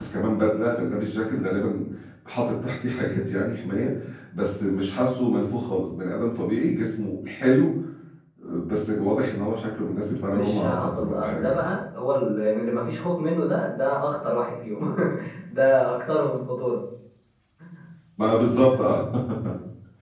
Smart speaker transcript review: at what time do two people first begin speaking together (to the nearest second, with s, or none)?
10 s